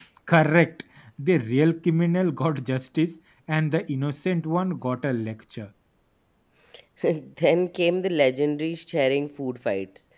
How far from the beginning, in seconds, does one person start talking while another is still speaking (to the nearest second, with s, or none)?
none